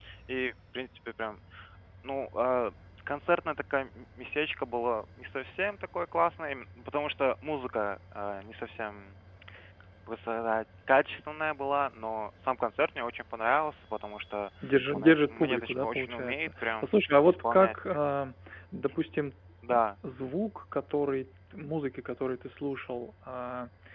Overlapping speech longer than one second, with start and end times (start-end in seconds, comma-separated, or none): 14.9-17.7